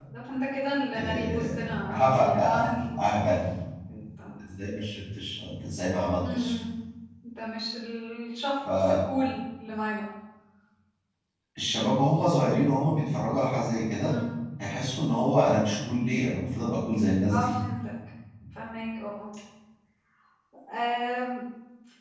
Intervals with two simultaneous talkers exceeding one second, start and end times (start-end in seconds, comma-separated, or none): 0.9-2.6